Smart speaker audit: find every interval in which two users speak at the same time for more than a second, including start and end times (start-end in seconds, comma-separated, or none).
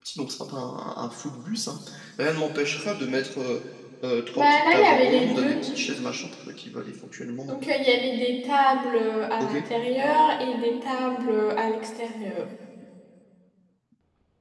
4.3-5.6